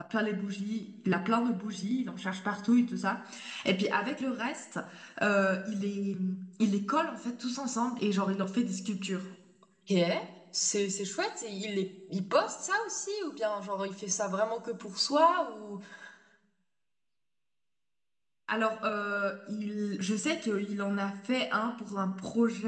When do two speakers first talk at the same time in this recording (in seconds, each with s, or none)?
none